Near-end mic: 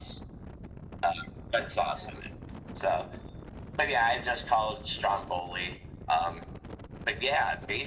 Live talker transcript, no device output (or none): none